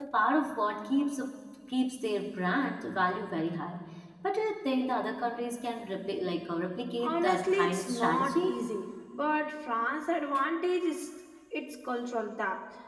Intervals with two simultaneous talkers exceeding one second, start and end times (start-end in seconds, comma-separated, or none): 7.0-8.6